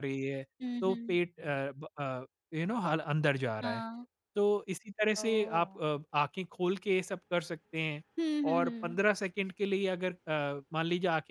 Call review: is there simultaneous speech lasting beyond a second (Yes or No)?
No